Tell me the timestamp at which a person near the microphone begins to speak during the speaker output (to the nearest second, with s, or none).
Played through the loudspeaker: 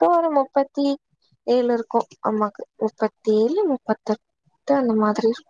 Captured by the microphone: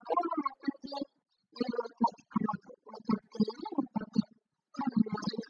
none